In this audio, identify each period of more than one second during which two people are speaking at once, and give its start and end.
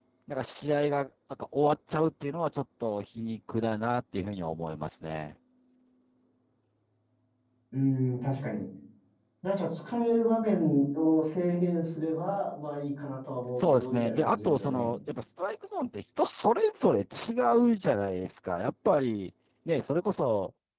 13.6-14.9

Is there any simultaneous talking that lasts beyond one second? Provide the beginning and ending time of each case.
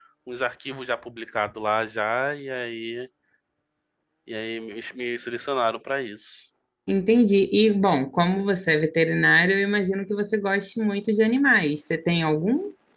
none

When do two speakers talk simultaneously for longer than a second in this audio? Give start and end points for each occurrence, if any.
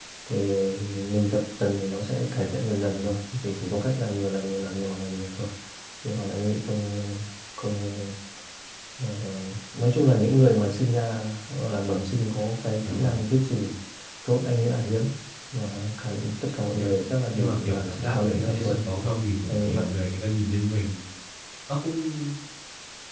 17.3-18.8

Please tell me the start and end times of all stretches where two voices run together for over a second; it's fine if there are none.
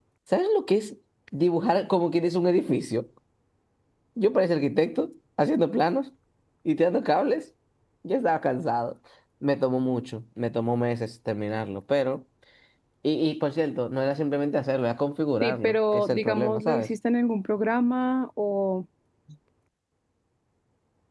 15.4-16.9

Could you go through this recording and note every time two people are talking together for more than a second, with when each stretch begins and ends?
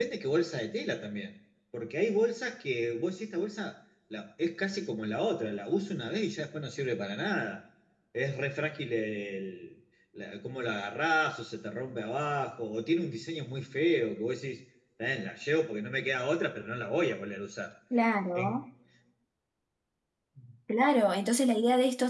none

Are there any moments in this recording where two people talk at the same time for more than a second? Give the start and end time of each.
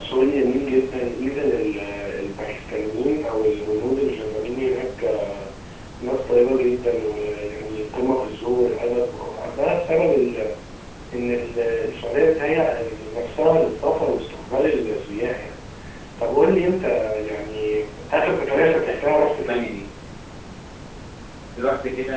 18.4-19.7

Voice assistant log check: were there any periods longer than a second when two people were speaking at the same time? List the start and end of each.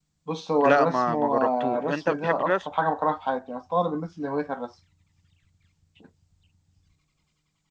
0.6-2.4

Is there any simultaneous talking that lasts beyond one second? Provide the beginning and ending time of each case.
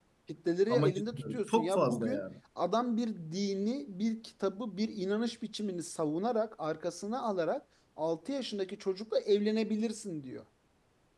0.7-2.2

